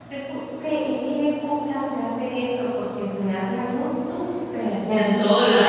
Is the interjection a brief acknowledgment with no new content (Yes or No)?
No